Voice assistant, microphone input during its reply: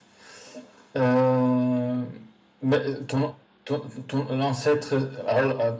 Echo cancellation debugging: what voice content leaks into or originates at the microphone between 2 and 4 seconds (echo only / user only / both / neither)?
echo only